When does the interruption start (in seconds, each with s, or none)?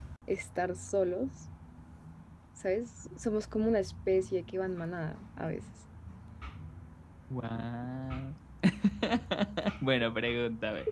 none